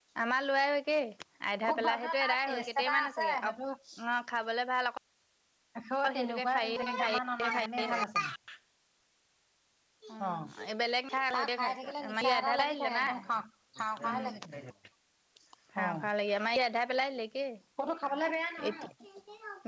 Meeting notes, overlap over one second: present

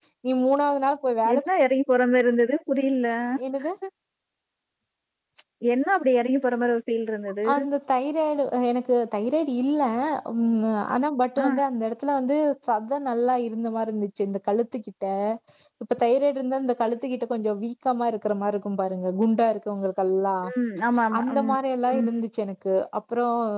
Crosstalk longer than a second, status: none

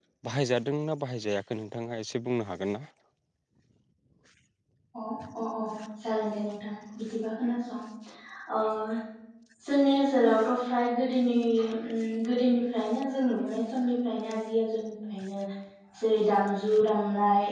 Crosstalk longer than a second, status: none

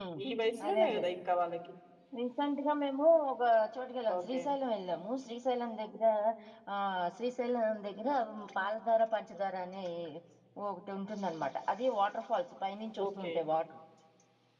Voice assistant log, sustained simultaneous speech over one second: none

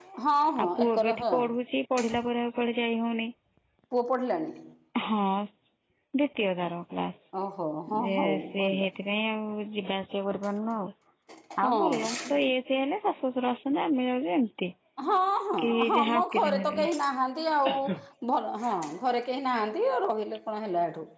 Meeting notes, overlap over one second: present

